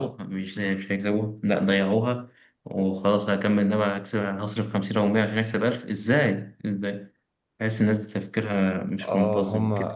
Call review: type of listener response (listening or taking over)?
taking over